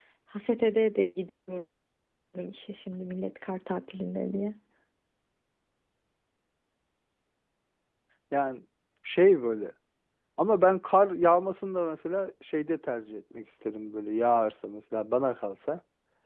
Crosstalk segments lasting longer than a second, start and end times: none

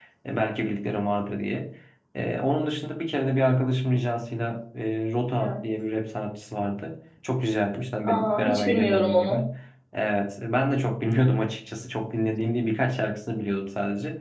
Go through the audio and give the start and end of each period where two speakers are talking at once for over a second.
8.0-9.4

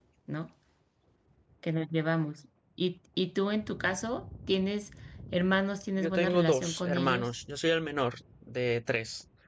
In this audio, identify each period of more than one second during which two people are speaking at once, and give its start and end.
6.0-7.3

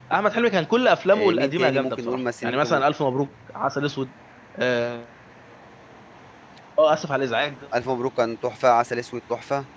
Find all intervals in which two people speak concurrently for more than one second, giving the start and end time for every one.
1.1-2.8

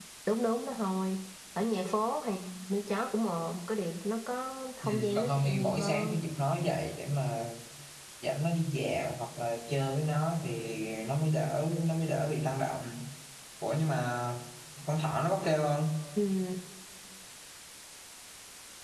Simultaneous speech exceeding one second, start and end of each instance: 4.8-6.2

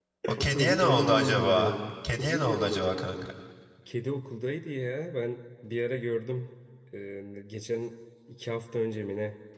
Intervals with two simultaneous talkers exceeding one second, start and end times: 0.5-1.8

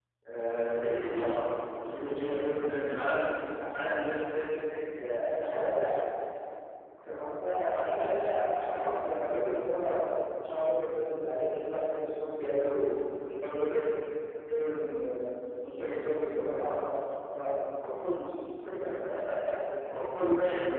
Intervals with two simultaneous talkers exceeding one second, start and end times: none

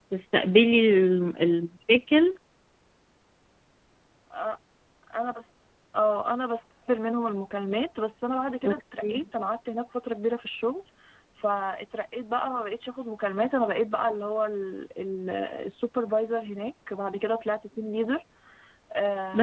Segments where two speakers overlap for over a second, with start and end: none

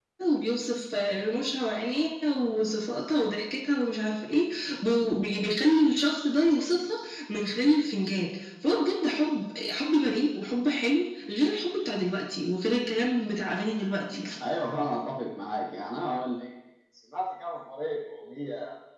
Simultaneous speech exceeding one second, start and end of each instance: none

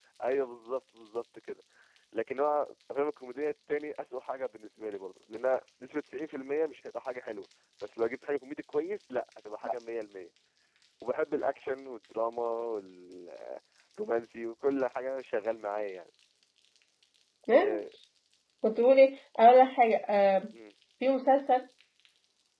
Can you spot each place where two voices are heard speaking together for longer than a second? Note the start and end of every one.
none

